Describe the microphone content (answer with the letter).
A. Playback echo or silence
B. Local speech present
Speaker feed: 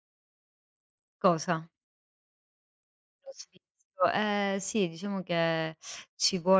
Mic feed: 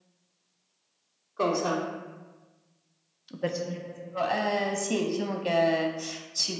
B